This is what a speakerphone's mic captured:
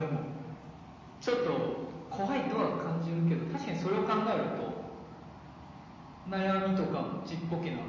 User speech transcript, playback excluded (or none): none